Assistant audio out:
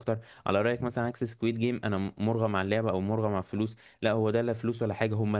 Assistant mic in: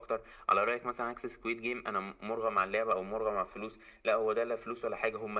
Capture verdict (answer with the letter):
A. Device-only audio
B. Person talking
A